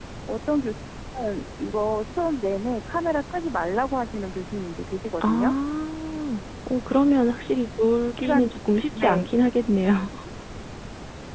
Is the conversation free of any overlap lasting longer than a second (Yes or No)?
Yes